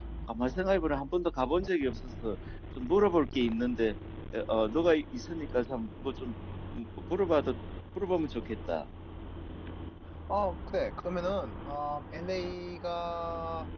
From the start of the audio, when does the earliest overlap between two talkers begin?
none

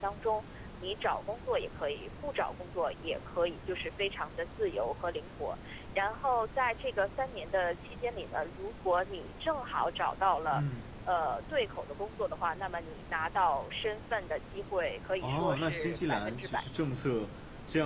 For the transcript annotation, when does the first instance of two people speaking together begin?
15 s

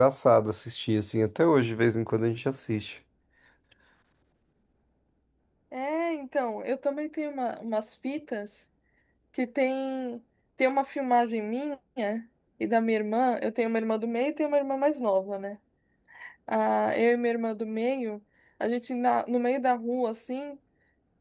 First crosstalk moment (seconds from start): none

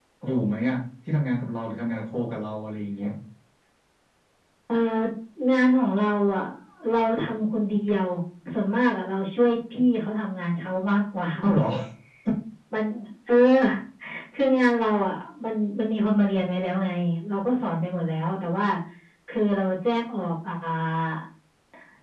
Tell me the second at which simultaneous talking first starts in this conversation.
none

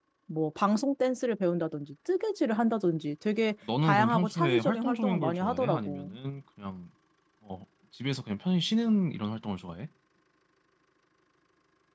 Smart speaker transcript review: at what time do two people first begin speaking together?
4 s

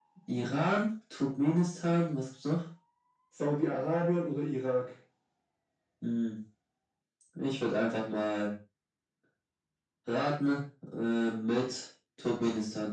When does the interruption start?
none

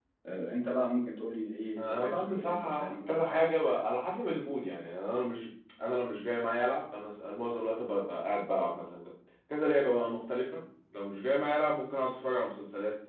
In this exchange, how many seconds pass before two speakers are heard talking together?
2 s

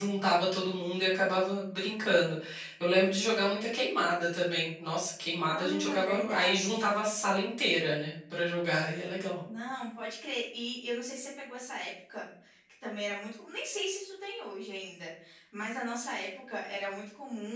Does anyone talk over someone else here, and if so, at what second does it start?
5 s

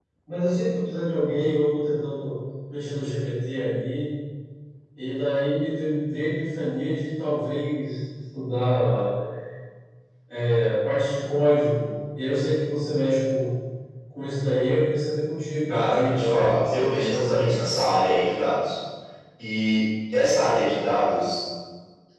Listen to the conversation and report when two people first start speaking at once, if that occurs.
16 s

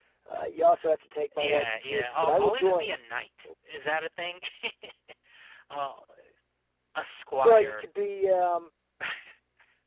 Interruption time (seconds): 1 s

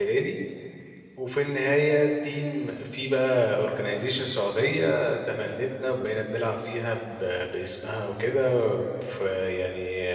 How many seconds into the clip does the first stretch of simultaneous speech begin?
none

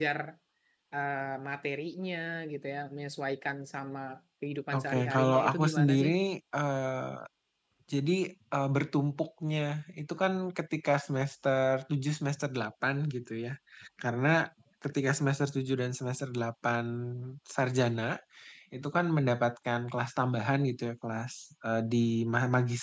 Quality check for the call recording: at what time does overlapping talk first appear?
5 s

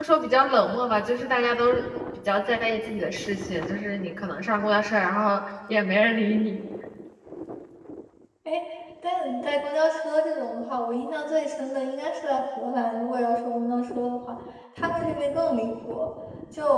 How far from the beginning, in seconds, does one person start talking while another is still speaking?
none

